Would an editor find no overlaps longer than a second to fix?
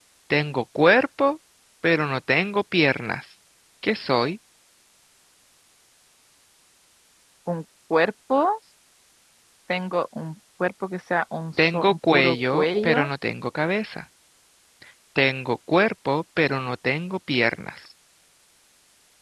No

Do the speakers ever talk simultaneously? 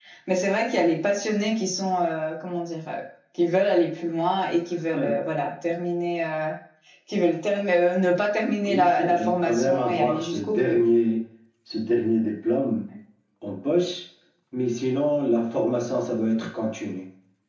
Yes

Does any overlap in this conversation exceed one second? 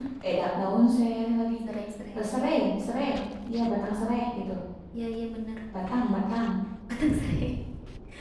No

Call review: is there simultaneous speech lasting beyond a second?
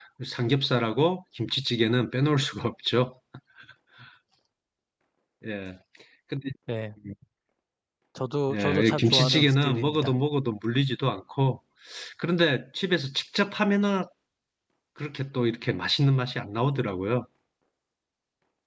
Yes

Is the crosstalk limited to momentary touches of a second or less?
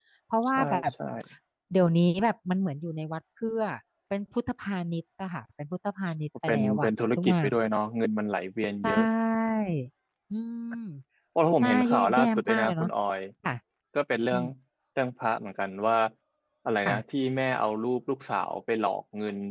No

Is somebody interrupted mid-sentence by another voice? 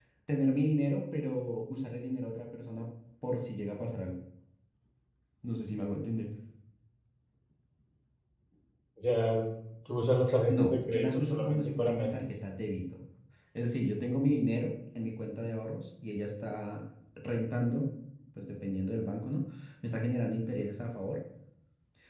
Yes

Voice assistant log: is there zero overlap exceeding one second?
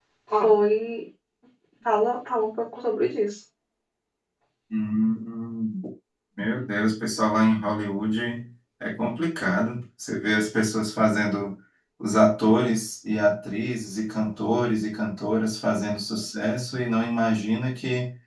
Yes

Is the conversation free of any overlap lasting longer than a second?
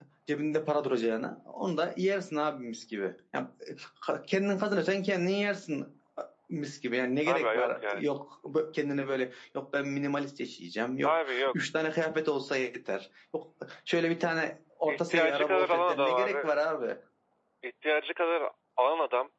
No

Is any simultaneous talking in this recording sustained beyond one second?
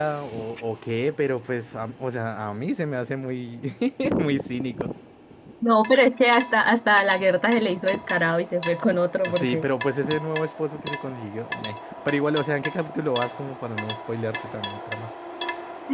No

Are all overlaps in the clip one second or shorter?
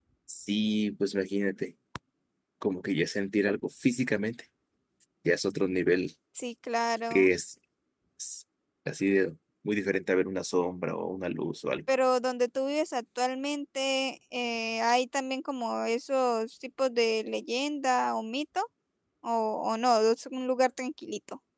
Yes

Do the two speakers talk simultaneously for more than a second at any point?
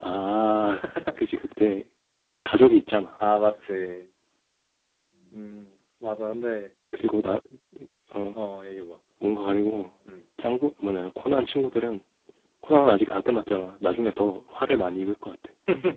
No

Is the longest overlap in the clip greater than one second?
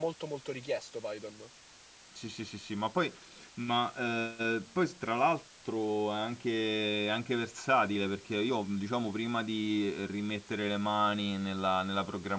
No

